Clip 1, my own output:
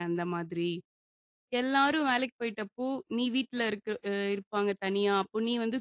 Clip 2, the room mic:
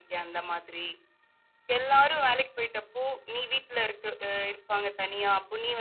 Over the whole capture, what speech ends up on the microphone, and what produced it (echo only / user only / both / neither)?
echo only